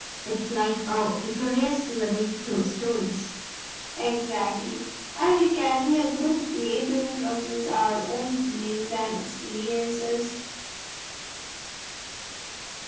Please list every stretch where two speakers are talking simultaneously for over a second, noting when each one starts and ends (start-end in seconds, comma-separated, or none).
none